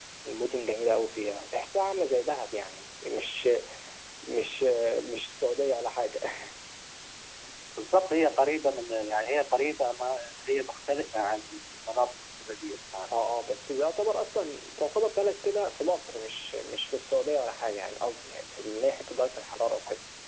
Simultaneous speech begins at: none

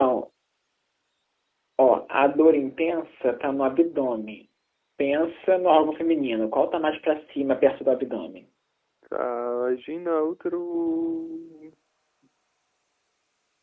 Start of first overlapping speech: none

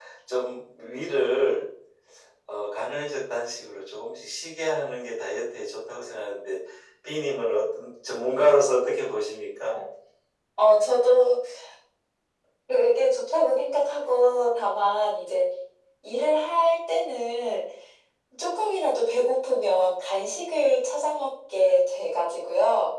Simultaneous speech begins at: none

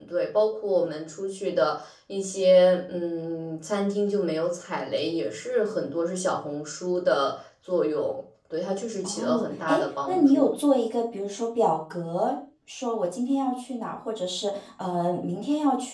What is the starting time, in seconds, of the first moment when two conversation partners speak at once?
9.0 s

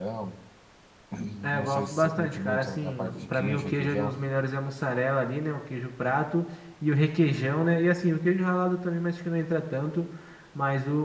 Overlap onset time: 1.5 s

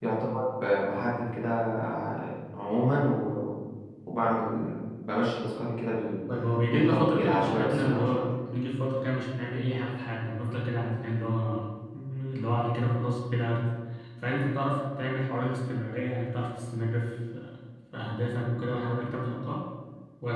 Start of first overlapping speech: 6.7 s

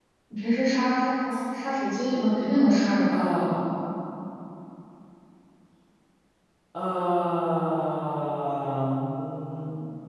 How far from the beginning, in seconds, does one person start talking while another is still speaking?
none

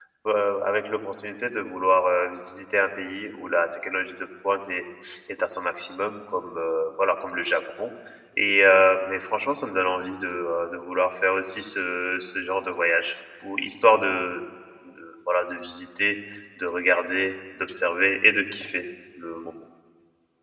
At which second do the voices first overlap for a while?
none

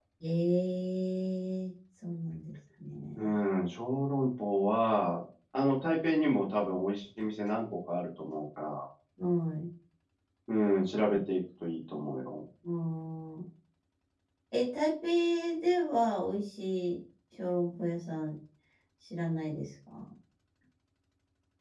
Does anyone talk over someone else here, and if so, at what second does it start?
none

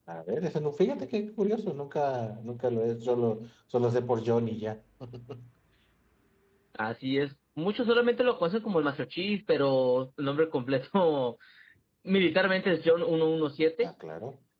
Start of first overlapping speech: none

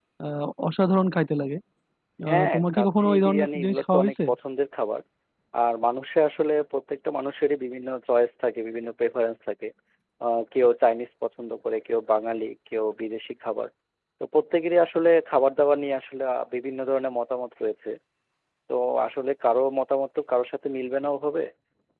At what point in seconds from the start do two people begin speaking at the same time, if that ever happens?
2.3 s

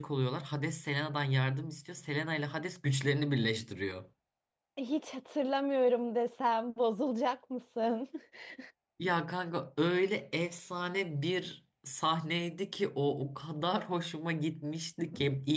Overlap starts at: none

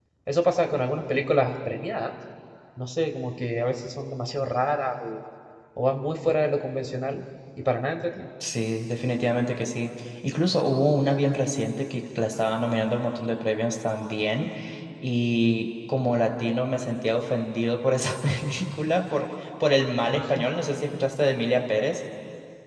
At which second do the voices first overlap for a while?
none

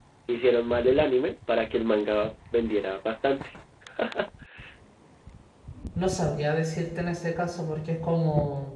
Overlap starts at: none

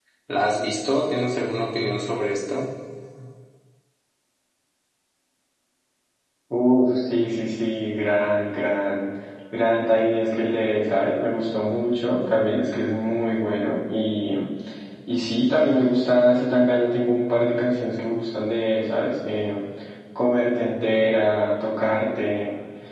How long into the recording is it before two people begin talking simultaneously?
none

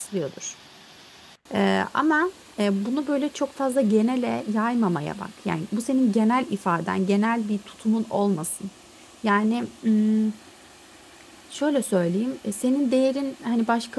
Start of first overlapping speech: none

